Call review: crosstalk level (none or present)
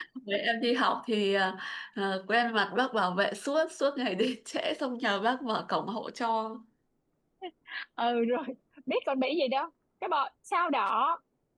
none